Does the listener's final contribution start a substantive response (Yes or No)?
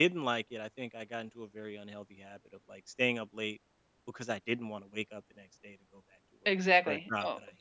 Yes